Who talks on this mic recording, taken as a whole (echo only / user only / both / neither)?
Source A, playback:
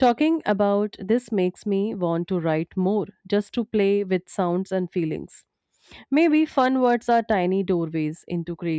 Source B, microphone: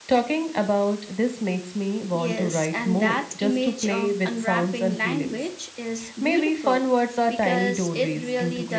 both